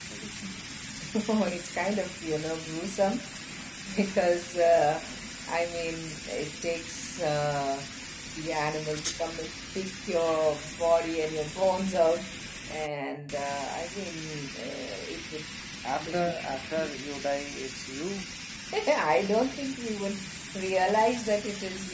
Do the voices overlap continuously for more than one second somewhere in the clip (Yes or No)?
No